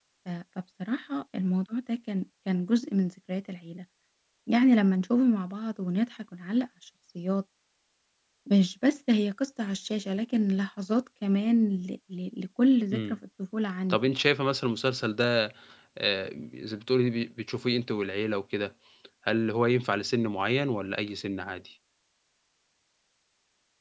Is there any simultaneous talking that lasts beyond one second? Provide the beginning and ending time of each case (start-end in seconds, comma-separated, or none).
none